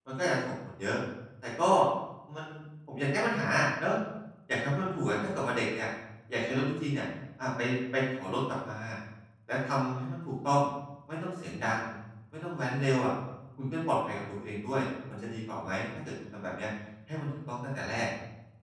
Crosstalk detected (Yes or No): No